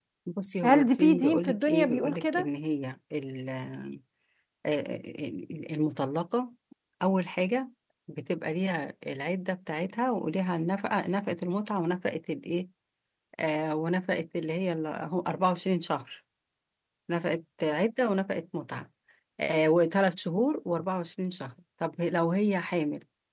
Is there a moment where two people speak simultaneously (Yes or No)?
Yes